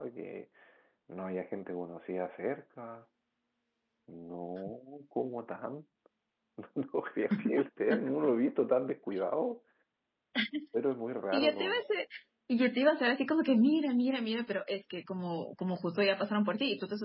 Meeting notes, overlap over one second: none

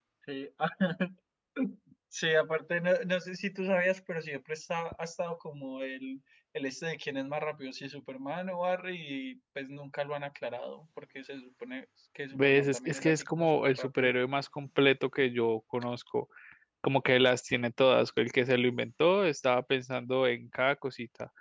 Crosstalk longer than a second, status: present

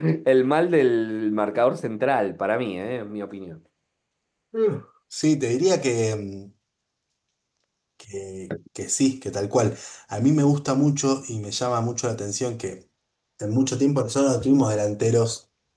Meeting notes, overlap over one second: none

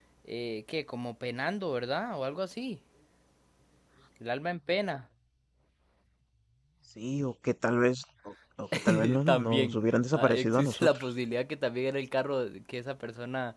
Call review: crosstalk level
present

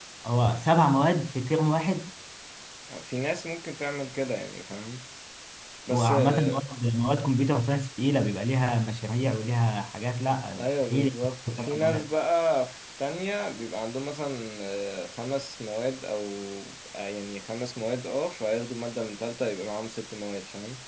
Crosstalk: present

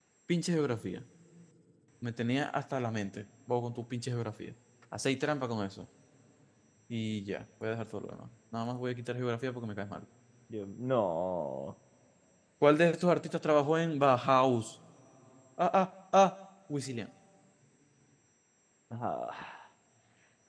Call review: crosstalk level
none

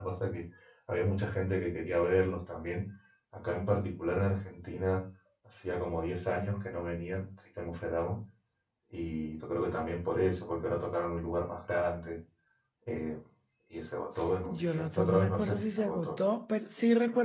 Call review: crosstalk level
present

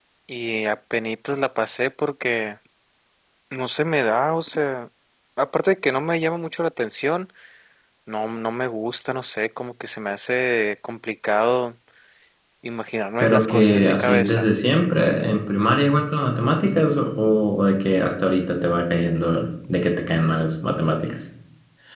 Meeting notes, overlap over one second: present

